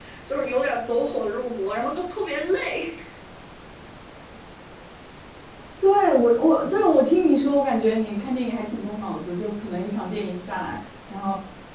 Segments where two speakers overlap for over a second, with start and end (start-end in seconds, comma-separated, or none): none